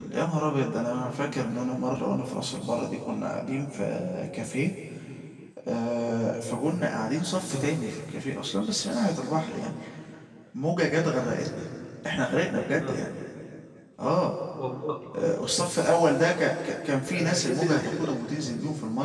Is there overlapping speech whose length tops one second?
Yes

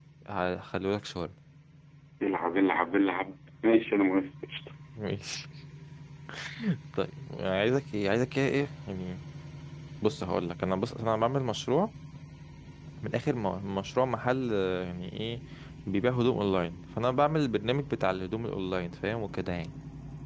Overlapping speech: No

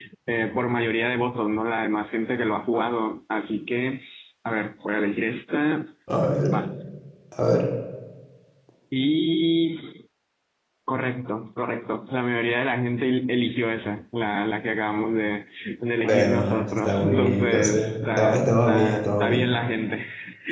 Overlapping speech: Yes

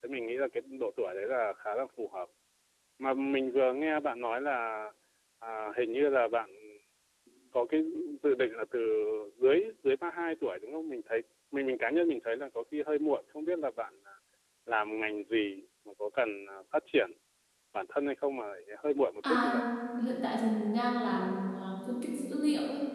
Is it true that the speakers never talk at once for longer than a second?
Yes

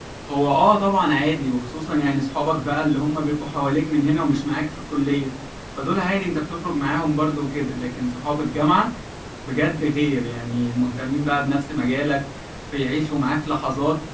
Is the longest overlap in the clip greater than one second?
No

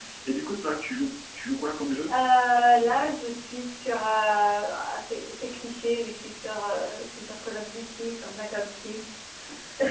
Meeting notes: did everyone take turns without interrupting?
Yes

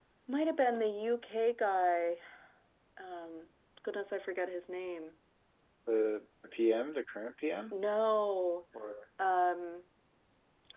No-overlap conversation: Yes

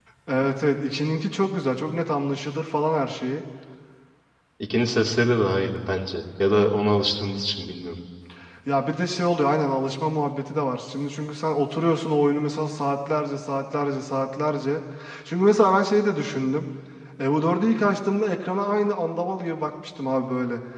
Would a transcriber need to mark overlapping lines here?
No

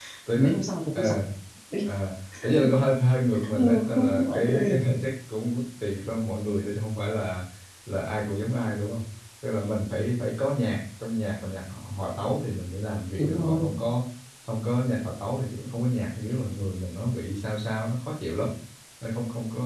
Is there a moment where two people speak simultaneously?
Yes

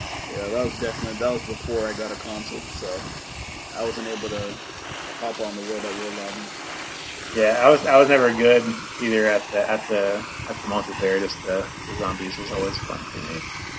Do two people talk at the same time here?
No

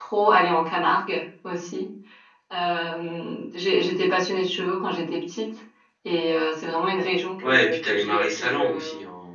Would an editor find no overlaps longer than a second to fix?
No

